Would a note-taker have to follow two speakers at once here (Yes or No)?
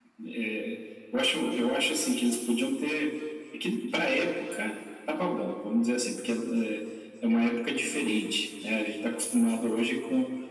No